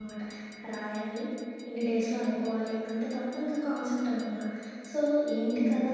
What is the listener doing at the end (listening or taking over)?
listening